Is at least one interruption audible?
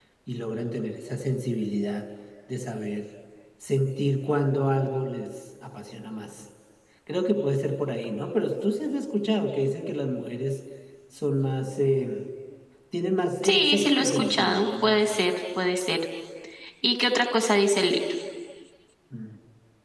Yes, from 13.4 s

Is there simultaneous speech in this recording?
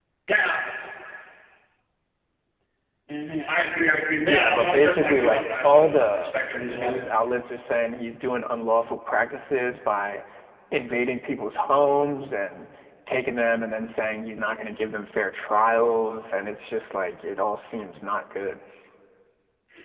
Yes, from 4.3 s

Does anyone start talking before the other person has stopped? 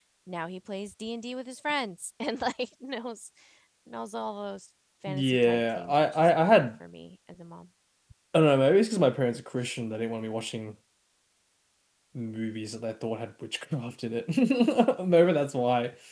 Yes, from 5.1 s

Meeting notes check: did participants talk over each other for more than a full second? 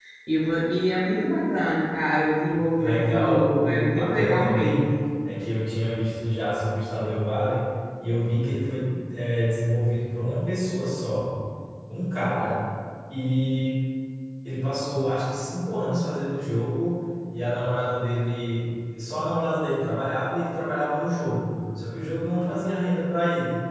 Yes, from 2.8 s

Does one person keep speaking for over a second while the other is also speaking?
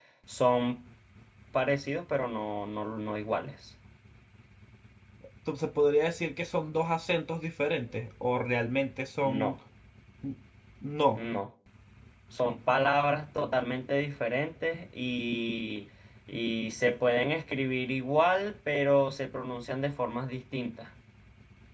No

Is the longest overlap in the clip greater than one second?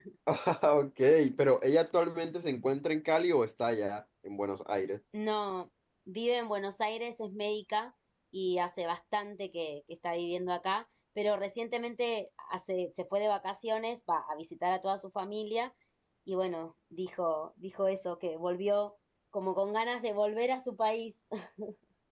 No

